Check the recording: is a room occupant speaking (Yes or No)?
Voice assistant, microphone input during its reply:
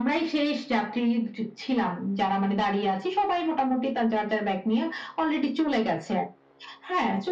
No